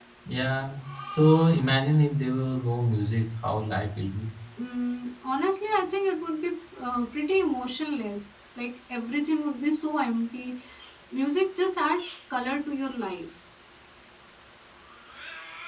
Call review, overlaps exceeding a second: none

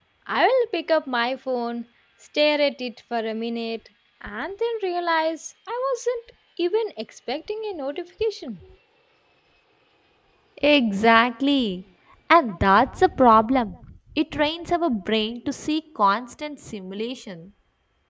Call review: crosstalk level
none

